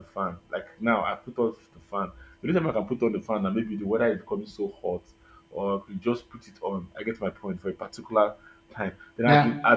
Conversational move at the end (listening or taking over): listening